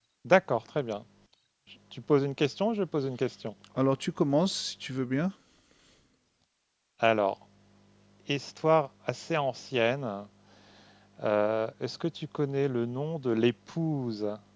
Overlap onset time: none

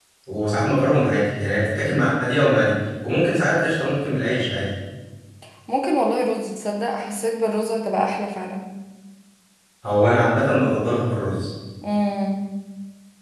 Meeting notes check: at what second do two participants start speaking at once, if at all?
none

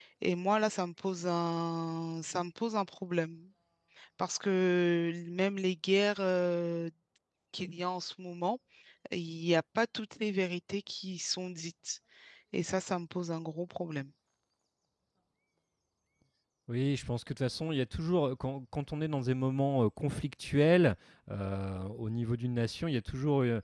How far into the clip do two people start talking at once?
none

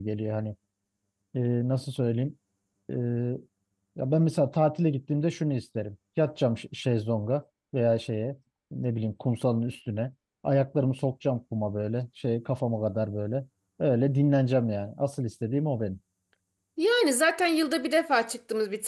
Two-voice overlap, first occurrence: none

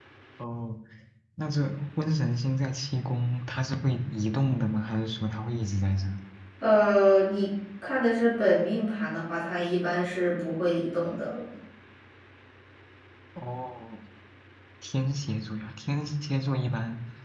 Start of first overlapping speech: none

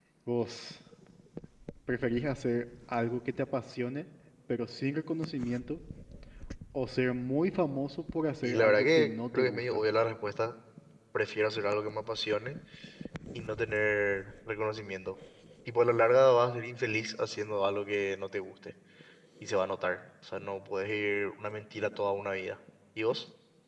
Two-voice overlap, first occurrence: 8.4 s

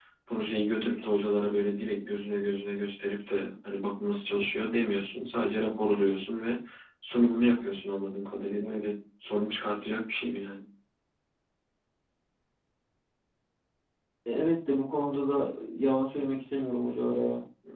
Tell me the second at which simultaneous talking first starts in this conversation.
none

